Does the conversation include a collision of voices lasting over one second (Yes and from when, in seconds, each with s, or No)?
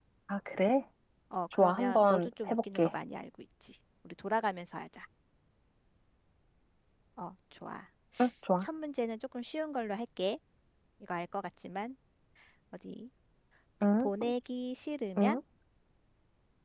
Yes, from 1.5 s